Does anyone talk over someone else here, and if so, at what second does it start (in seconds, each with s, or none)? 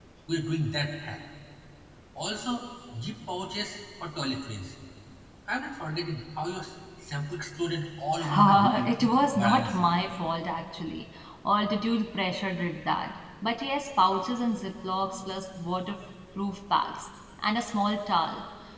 8.2 s